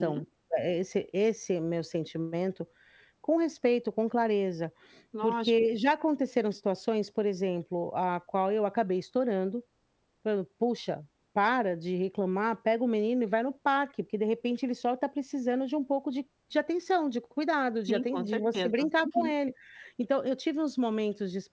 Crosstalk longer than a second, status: present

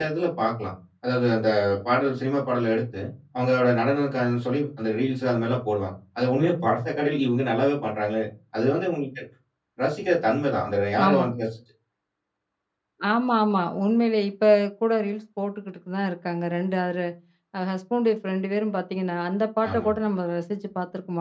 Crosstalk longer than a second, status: none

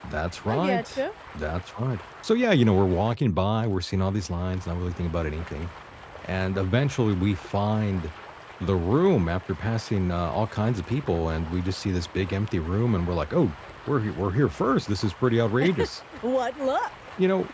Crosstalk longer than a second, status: none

